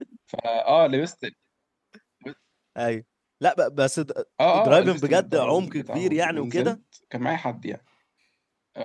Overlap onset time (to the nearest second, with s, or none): 4 s